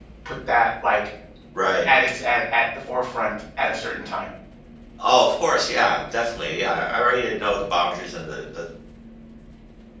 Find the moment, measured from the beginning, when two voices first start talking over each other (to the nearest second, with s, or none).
none